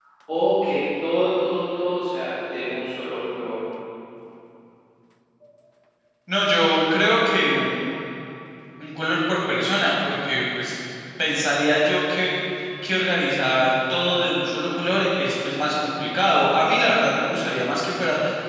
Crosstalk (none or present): none